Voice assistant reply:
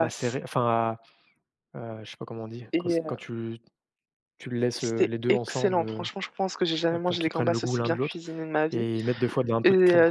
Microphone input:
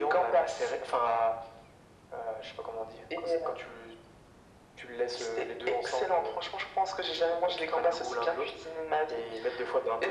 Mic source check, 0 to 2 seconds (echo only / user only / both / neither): echo only